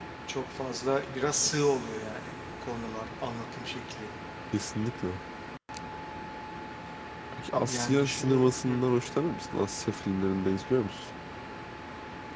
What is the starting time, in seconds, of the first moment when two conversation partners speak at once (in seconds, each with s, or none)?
7.5 s